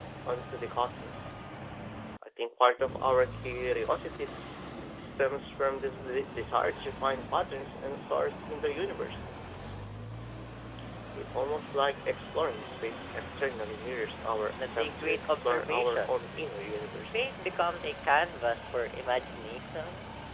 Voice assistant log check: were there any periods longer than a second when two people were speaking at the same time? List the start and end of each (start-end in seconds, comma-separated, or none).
14.6-16.2